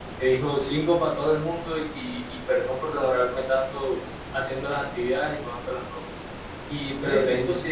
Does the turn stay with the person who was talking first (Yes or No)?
Yes